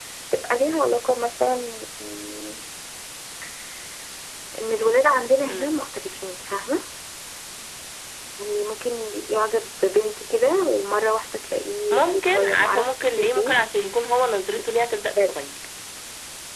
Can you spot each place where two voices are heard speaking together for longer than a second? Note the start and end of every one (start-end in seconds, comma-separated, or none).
11.9-13.6